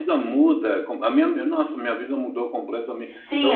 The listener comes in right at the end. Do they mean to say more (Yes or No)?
Yes